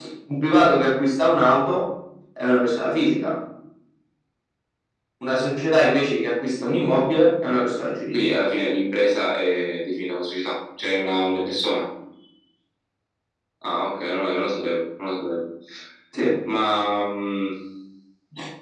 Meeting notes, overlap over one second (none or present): none